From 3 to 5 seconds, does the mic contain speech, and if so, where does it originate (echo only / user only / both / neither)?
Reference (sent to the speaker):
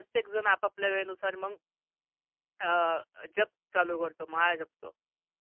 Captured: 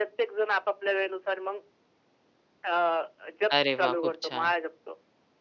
both